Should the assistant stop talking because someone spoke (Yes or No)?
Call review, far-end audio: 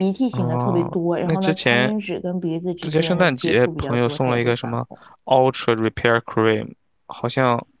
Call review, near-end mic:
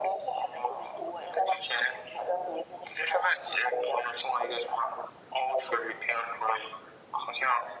No